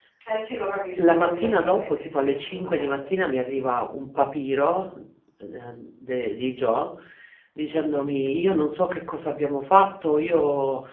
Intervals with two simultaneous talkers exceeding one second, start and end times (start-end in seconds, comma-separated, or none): 1.0-3.1